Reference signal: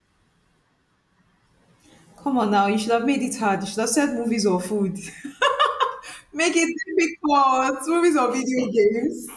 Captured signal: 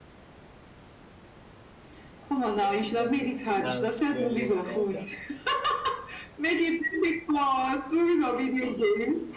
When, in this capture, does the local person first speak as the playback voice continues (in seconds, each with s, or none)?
2.4 s